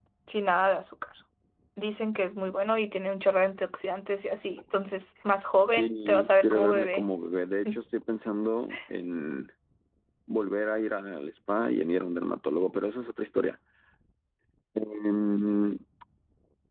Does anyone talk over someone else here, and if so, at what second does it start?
5.7 s

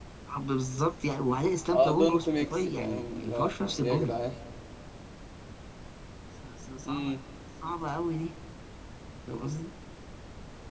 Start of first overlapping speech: 1.7 s

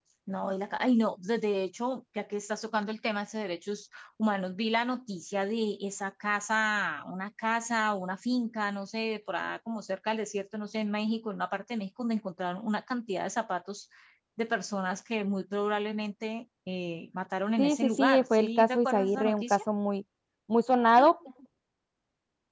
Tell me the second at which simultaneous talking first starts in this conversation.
17.6 s

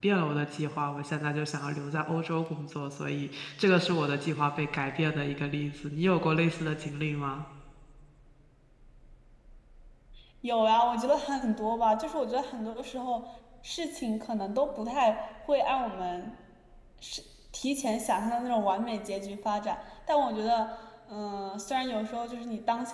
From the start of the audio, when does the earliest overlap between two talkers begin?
none

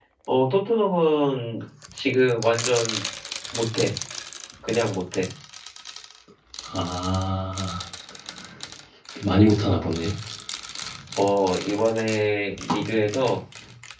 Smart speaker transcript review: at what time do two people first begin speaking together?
none

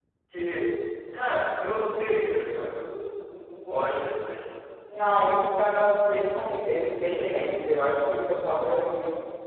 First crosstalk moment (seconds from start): none

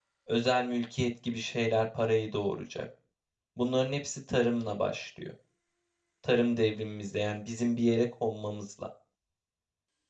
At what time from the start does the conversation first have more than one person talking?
none

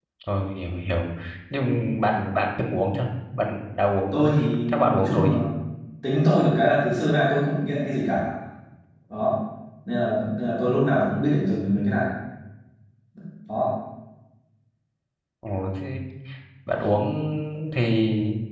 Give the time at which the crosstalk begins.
4.1 s

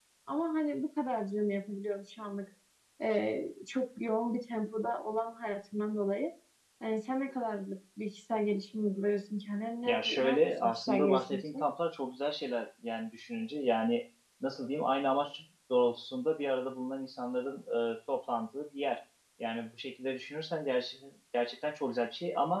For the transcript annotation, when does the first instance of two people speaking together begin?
9.8 s

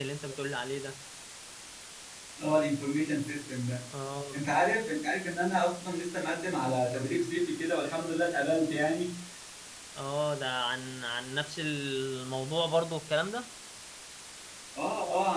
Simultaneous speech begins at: none

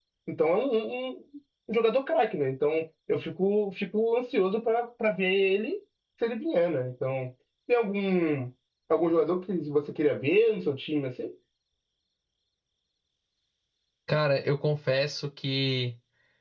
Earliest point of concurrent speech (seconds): none

